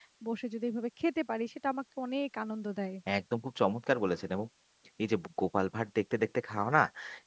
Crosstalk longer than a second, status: none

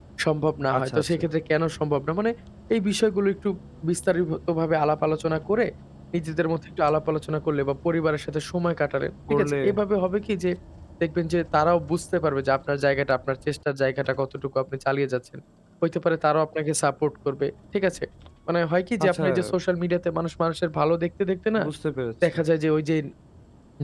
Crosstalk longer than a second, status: none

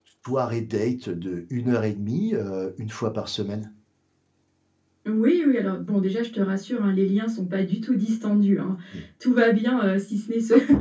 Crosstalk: none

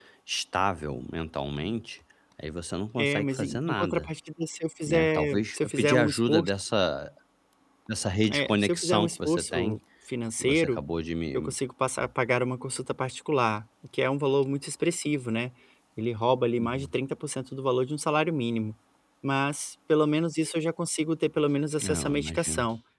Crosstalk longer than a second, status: present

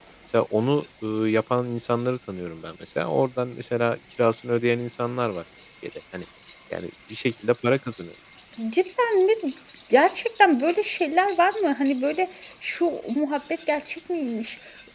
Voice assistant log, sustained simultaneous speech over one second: none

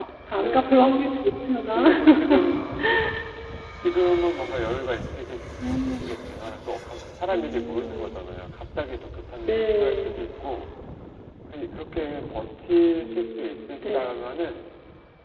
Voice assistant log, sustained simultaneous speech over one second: present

